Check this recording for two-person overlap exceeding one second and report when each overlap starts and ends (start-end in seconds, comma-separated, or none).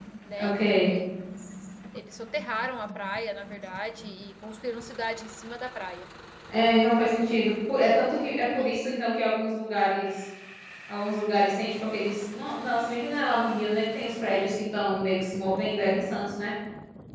none